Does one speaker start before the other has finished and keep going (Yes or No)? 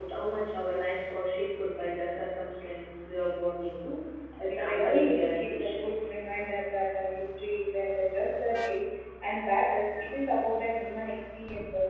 Yes